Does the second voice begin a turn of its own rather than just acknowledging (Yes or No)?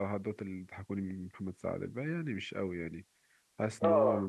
No